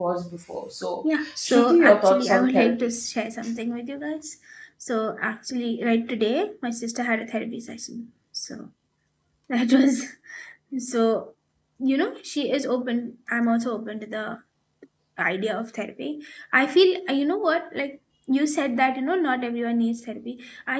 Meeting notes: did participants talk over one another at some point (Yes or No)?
Yes